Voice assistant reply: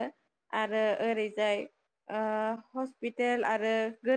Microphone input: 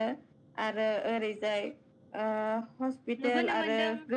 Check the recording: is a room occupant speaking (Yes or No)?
Yes